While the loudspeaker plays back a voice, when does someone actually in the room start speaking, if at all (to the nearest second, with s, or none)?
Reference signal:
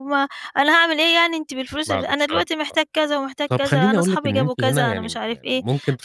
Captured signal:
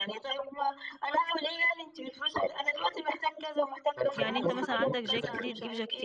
4 s